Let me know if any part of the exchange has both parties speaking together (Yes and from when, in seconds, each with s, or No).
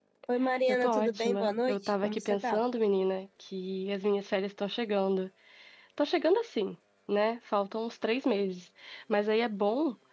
Yes, from 0.7 s